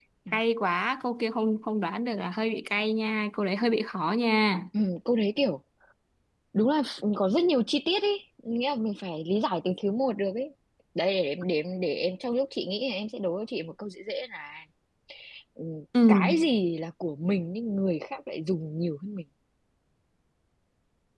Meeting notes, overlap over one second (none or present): none